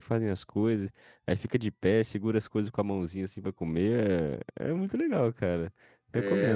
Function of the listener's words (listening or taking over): taking over